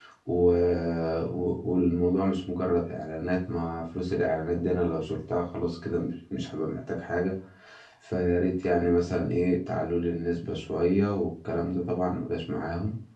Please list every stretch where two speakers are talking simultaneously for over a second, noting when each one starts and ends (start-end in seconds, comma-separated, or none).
none